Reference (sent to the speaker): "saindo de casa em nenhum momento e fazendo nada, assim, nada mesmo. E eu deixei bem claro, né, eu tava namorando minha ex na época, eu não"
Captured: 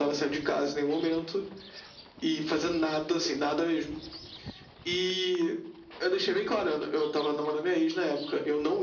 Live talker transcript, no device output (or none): none